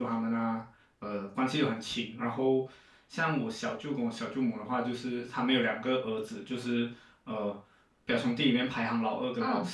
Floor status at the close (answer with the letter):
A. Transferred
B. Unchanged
B